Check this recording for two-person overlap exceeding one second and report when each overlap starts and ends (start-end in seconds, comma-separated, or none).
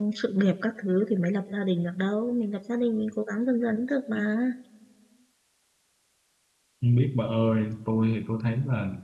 none